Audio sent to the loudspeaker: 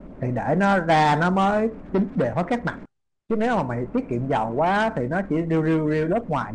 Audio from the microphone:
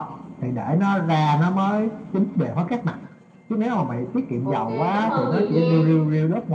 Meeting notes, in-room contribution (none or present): present